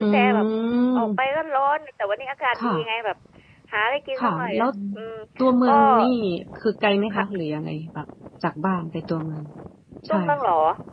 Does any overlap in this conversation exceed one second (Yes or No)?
No